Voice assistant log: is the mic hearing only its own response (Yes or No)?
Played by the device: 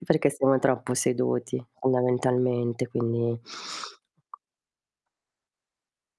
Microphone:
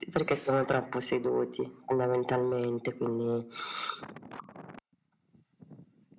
Yes